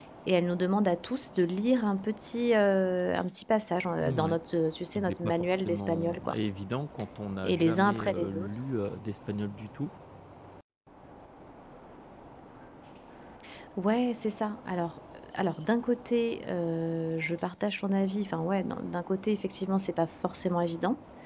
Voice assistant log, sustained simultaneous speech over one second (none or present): present